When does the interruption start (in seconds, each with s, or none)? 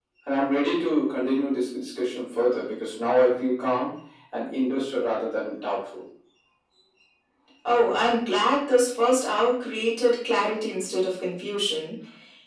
none